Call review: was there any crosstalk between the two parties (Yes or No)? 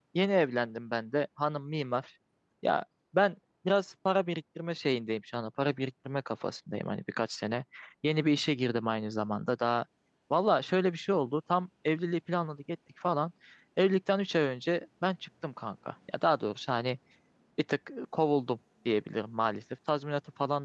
No